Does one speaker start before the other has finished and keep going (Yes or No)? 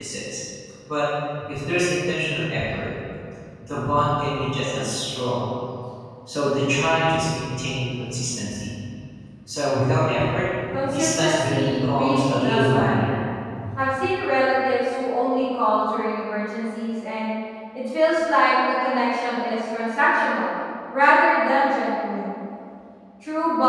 Yes